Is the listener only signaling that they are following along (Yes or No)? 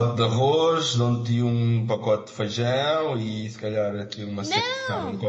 Yes